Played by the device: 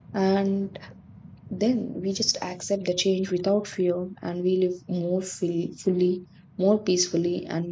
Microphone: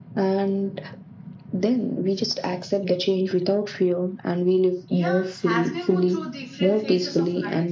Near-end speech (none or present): present